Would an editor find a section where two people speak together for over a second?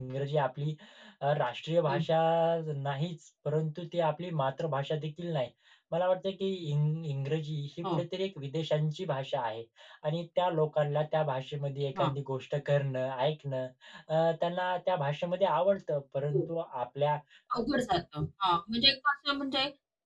No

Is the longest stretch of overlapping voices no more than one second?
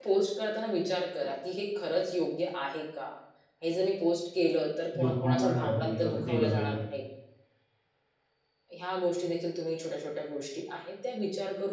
No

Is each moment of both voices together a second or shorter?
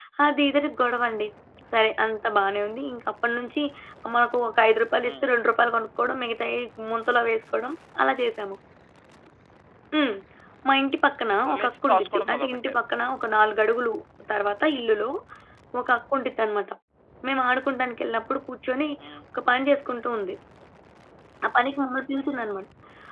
No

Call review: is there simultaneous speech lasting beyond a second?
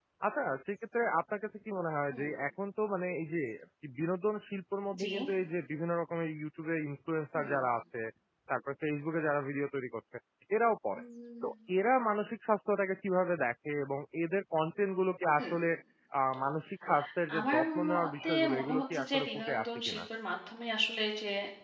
Yes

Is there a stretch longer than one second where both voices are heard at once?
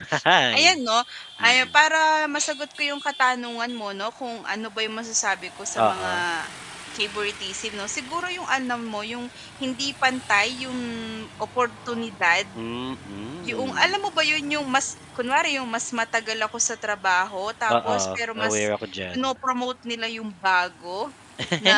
No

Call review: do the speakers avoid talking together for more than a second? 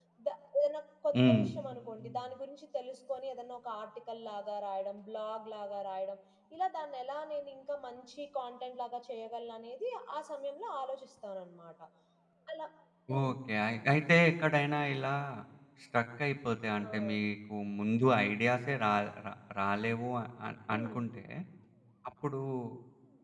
Yes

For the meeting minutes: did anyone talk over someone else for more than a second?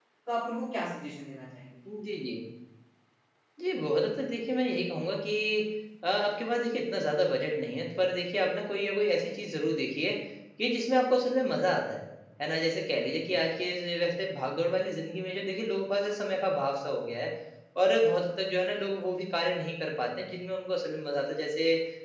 No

